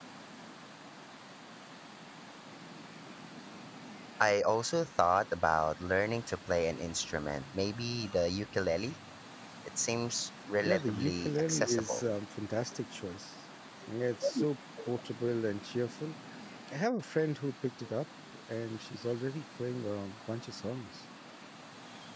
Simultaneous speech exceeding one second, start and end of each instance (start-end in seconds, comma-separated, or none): 10.6-12.0